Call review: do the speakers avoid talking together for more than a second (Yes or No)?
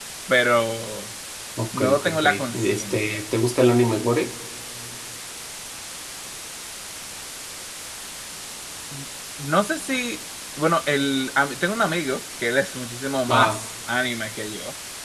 No